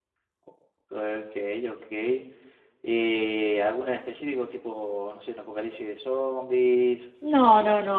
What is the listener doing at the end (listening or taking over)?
taking over